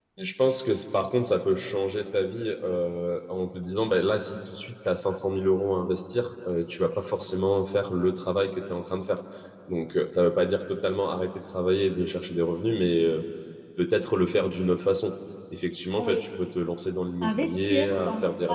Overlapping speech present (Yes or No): Yes